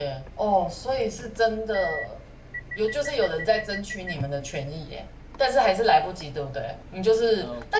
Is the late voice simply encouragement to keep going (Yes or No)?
Yes